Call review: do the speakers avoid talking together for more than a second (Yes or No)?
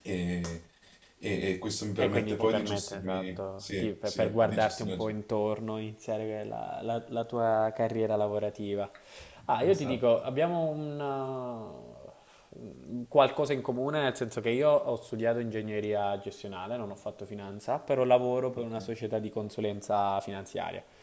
No